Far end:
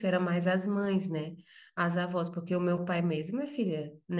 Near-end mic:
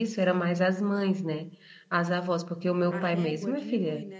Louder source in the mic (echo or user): echo